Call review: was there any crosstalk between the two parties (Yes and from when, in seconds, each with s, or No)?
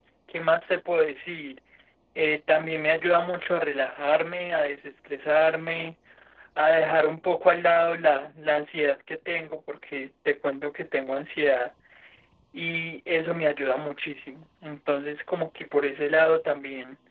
No